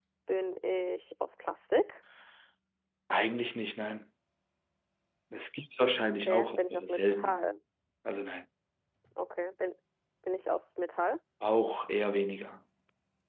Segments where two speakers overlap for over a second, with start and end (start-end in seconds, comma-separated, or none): 6.1-7.4